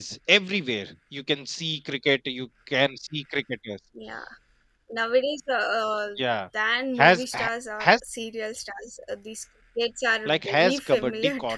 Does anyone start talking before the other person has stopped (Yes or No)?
Yes